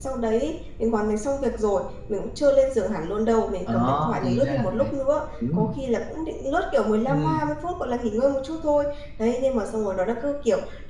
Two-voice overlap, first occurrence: 3.7 s

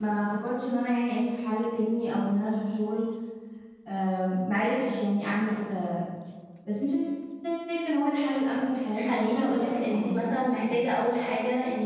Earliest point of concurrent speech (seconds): 8.9 s

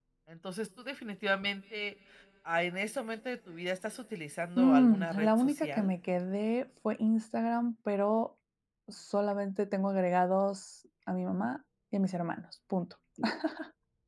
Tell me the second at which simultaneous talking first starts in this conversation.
4.6 s

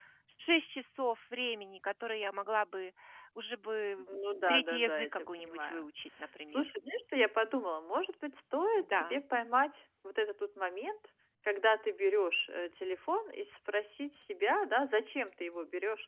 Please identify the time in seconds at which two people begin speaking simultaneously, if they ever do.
4.5 s

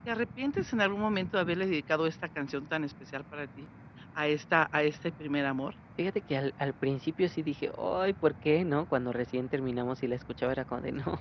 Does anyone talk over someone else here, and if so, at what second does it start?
none

